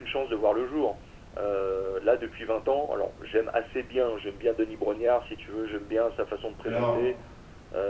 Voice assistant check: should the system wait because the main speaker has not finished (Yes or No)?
Yes